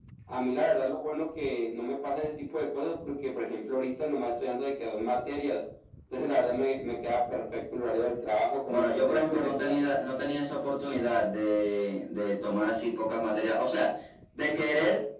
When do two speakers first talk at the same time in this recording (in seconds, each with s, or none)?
8.7 s